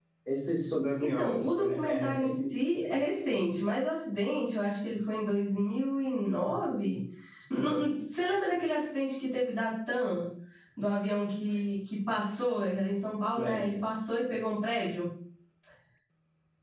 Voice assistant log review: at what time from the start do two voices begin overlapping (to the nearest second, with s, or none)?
1 s